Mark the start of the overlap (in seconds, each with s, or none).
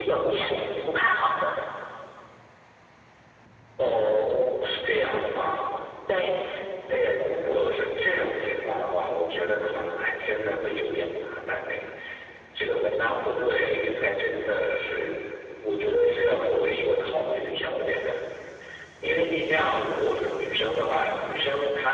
none